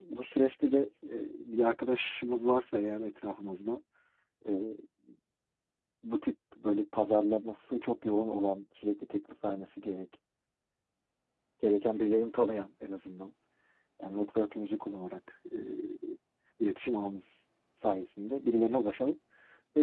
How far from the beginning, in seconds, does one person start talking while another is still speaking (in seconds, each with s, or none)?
none